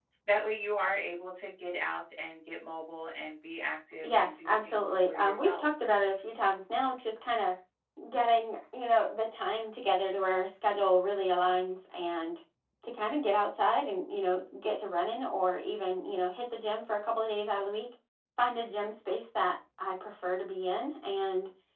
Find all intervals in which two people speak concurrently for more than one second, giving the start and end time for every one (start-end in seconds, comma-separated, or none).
4.0-5.7